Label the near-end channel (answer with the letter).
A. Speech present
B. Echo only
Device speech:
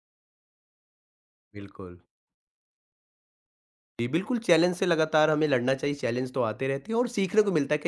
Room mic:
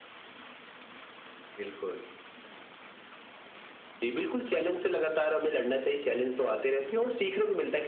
B